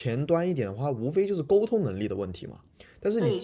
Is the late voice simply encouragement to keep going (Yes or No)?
No